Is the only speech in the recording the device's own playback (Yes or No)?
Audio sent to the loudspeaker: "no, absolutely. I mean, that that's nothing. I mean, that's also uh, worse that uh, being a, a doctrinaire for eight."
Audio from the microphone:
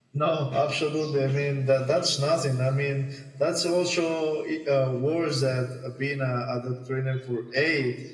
Yes